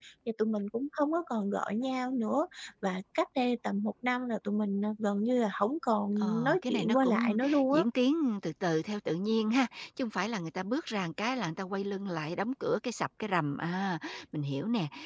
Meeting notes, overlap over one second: present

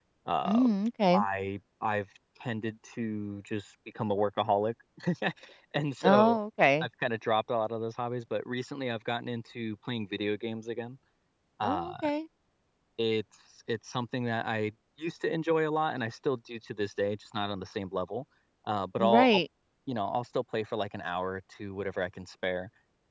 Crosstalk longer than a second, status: none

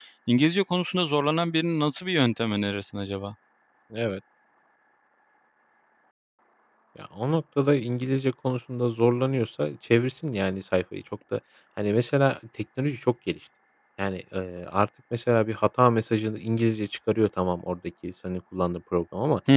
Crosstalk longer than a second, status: none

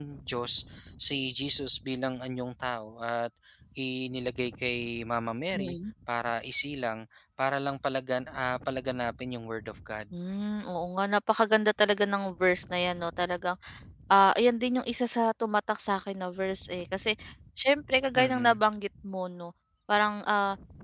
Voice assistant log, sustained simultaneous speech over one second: none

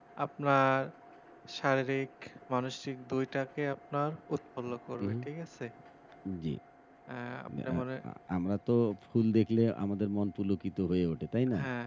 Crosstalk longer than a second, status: none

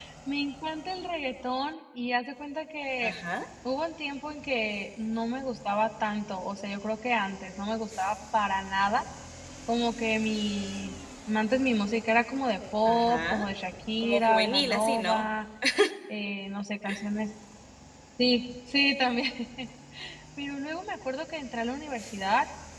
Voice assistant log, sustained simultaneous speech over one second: present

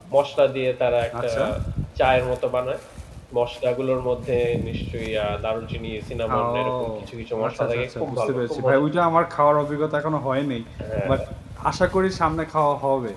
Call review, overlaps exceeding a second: present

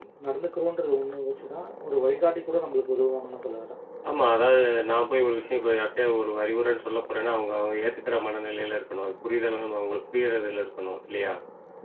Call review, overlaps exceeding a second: none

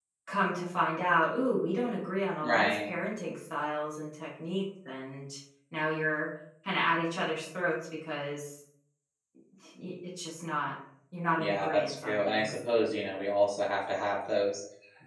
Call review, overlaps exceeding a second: present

